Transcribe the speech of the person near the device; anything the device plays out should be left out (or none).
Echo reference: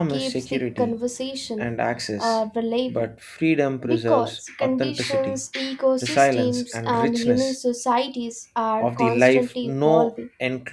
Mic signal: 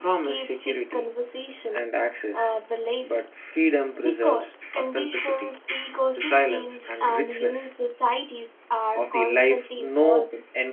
none